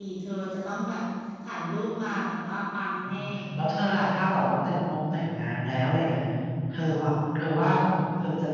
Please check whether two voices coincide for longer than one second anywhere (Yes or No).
No